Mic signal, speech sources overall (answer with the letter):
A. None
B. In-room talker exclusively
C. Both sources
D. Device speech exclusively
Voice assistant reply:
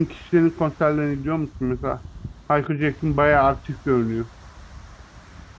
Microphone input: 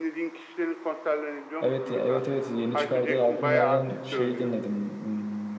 C